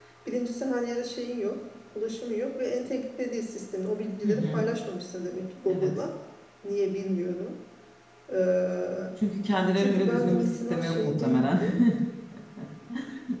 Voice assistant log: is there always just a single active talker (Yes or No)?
No